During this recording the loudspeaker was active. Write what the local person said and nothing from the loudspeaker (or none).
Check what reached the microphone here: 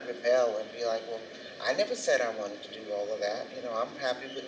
none